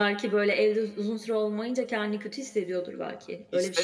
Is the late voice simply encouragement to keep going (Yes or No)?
No